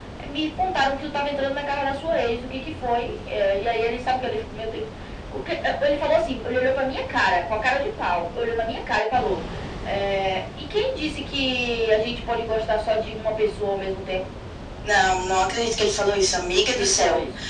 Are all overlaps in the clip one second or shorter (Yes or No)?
Yes